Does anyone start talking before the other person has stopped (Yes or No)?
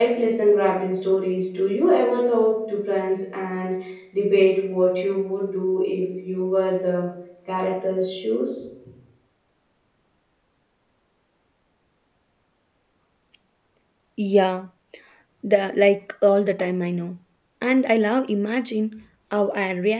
No